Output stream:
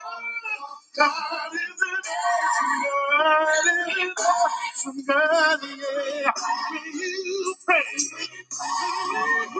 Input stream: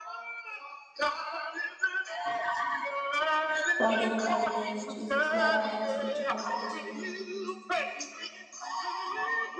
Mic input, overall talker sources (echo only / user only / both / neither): both